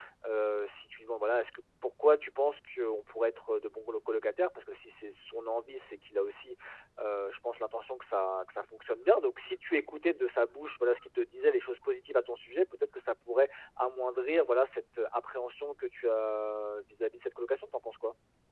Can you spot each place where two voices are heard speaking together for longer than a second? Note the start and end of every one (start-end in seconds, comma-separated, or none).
none